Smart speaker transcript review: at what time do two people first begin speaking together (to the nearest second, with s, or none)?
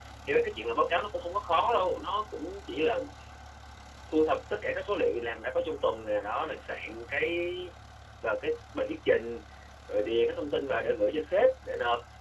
none